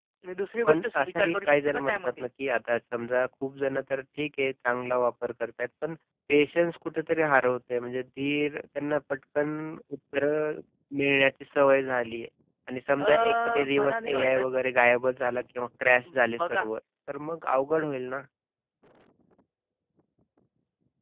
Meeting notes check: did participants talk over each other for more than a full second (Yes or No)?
Yes